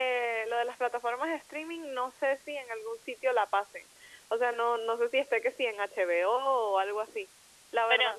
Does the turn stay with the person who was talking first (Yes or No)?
Yes